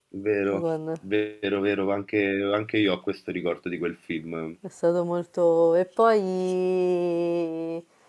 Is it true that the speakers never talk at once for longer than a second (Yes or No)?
Yes